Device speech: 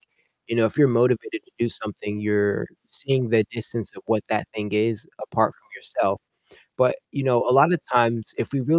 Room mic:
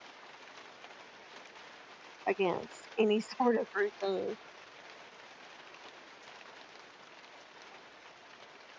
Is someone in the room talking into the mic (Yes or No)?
Yes